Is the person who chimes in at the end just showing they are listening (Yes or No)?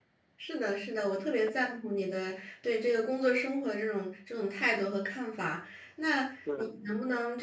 Yes